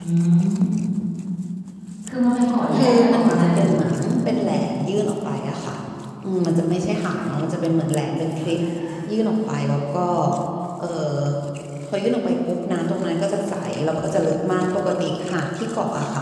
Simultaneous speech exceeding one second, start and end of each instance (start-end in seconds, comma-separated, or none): 2.7-4.0